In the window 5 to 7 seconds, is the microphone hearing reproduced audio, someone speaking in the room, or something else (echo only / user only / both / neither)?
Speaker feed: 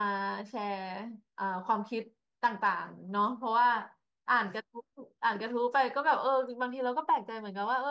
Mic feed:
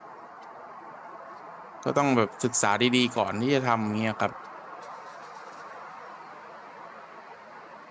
neither